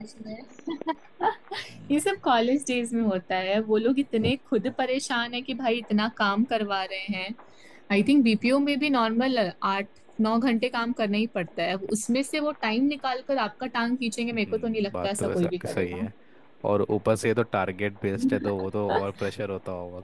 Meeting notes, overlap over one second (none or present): present